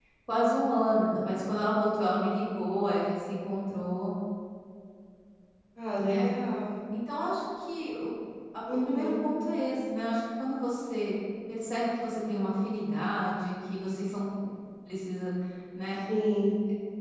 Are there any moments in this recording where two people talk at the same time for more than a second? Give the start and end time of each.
none

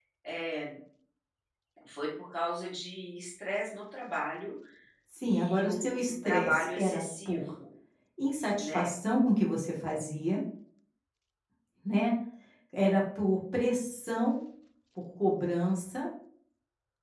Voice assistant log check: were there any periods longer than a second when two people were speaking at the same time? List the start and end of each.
5.2-7.4

